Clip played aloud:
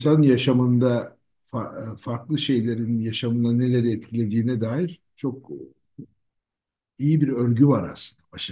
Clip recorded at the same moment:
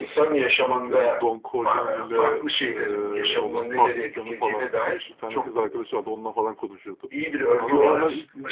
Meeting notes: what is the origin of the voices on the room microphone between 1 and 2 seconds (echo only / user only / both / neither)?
both